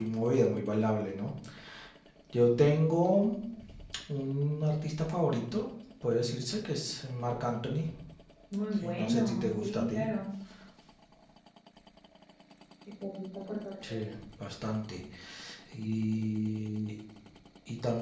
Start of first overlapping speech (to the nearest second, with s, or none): 9 s